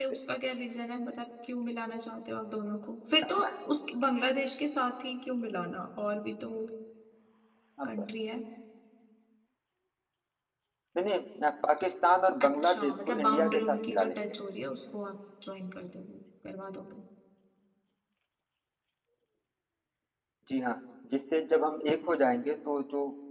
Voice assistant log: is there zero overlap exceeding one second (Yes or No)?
No